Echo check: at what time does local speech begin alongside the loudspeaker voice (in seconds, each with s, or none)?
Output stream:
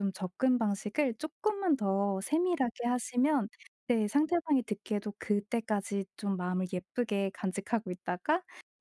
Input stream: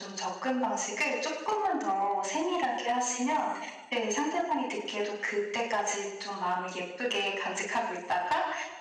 none